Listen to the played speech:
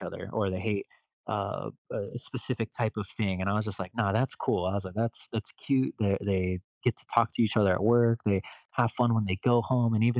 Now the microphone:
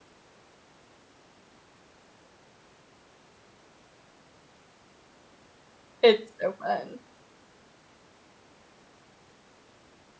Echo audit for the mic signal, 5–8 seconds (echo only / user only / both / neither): user only